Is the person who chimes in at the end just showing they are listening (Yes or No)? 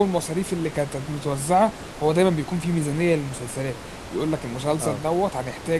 Yes